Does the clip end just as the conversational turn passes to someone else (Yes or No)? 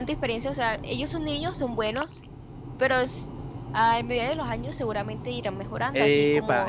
Yes